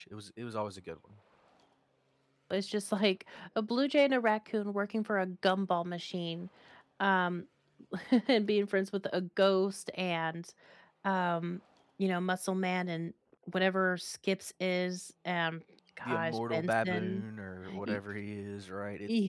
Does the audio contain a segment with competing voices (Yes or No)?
Yes